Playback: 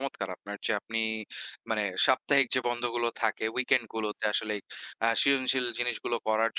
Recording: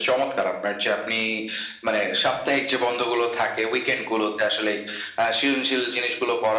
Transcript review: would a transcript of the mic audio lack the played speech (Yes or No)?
No